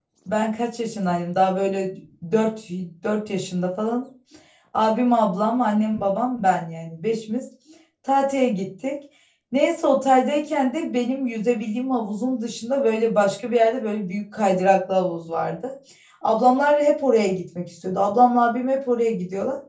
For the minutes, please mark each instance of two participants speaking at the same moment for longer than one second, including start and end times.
none

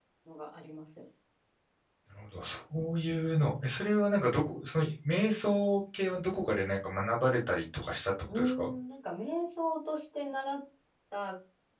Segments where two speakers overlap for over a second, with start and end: none

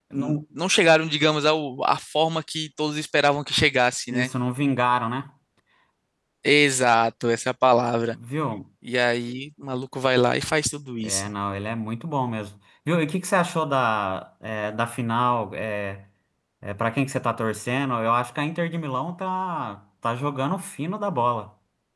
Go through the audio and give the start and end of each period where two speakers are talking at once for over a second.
none

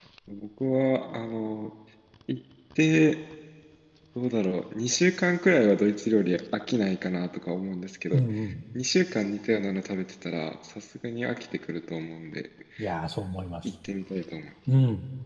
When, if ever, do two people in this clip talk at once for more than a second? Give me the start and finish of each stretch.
none

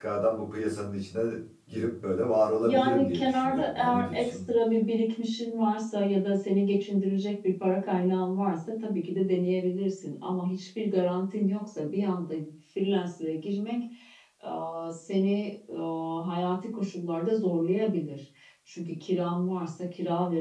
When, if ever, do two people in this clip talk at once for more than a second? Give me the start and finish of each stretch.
2.6-4.4

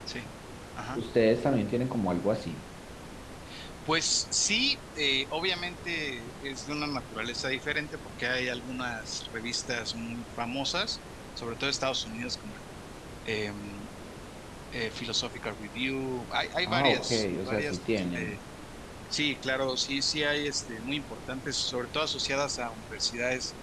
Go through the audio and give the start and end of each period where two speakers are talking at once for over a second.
16.7-18.4

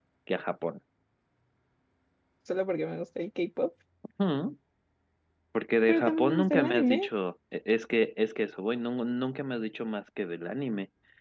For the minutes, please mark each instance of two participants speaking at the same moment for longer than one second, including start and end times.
5.9-7.1

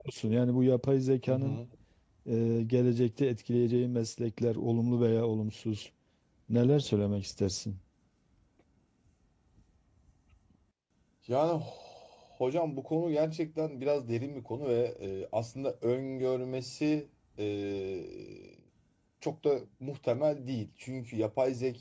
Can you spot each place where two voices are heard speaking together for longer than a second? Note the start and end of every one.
none

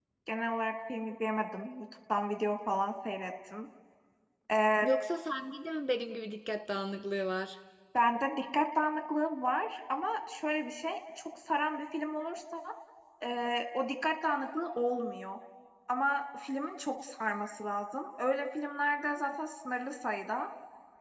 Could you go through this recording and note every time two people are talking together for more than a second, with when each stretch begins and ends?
none

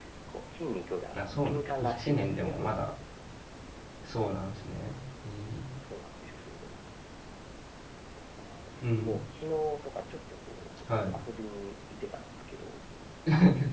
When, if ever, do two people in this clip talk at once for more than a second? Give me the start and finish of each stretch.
1.1-2.9

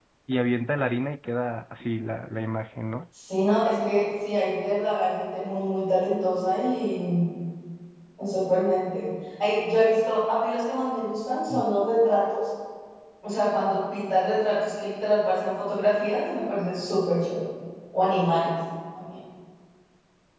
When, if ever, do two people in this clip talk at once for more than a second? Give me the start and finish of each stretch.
none

